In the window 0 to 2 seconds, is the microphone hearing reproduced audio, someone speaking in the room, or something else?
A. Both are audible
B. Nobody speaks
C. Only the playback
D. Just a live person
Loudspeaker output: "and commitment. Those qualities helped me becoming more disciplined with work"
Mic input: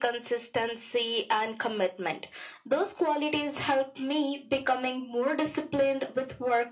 C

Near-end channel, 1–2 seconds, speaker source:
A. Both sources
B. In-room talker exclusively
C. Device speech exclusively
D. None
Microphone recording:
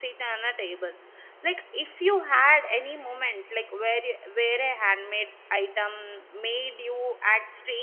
B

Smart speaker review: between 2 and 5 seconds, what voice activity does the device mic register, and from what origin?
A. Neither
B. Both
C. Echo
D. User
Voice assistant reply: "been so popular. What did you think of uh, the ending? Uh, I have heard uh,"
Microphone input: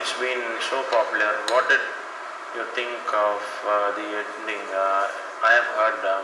C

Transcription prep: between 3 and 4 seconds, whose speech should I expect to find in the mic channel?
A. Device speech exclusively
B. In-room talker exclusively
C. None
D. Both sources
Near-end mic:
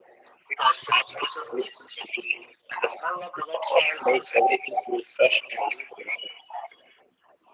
A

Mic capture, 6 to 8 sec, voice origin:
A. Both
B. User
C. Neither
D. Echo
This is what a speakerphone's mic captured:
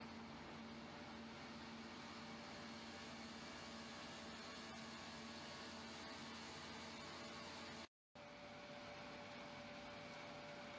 C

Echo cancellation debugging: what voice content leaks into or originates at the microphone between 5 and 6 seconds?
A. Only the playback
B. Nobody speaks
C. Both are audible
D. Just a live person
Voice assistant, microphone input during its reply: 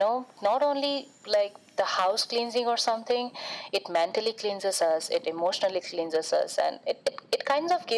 A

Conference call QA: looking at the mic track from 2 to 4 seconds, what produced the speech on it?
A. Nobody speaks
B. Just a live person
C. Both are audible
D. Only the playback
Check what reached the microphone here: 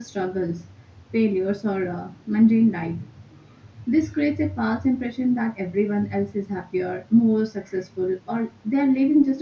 D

